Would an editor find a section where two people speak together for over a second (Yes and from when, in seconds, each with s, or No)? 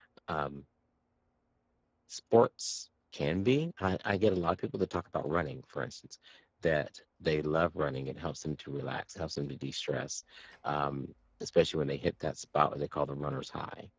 No